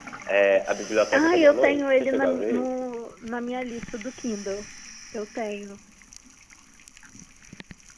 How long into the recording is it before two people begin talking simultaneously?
1 s

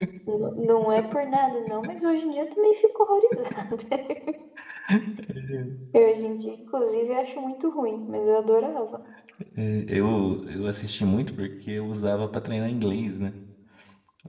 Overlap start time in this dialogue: none

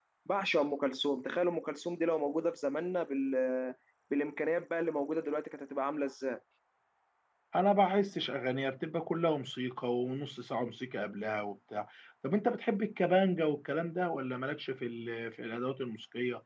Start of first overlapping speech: none

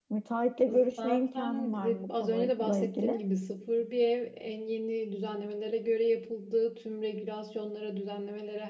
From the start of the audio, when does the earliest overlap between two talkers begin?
1 s

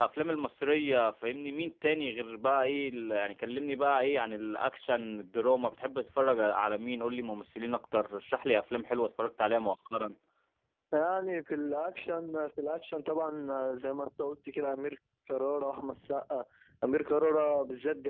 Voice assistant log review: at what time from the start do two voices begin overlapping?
none

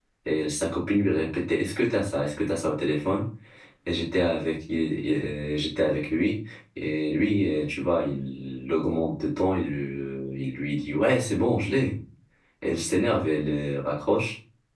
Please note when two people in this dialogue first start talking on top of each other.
none

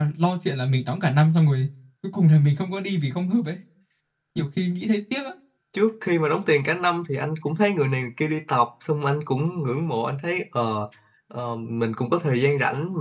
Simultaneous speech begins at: none

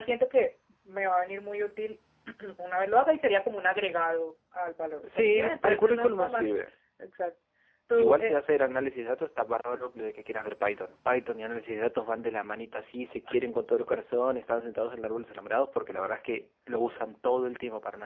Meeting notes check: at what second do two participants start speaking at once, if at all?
5 s

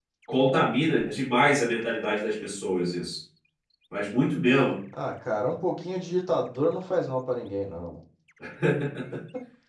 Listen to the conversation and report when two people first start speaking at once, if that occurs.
none

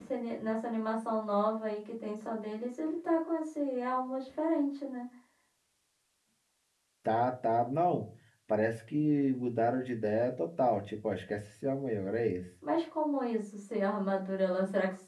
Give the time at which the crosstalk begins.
none

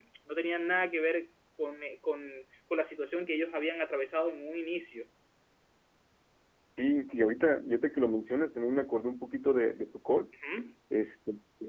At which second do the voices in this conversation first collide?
none

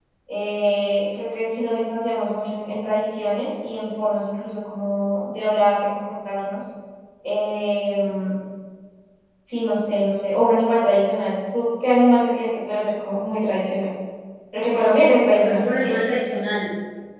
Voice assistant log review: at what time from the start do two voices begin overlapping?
15 s

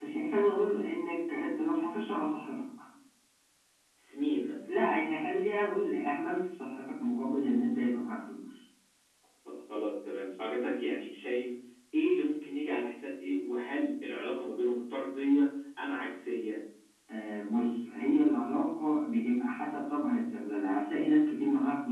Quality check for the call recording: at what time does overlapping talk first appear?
none

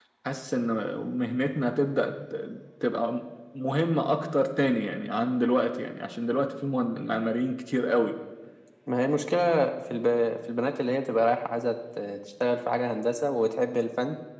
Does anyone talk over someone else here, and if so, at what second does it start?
none

